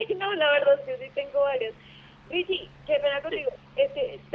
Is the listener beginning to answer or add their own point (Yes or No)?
No